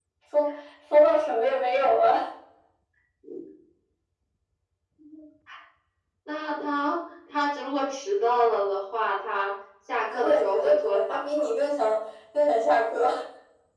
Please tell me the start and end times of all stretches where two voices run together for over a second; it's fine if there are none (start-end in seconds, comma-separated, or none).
10.1-11.5